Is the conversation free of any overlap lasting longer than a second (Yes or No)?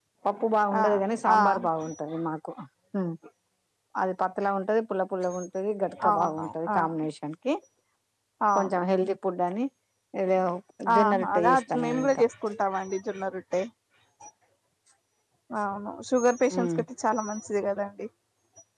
No